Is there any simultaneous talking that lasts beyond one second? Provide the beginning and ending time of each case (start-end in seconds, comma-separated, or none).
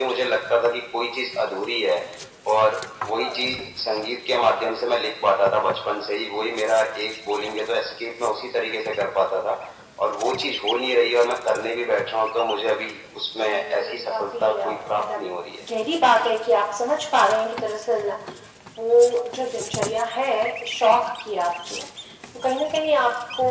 13.5-15.2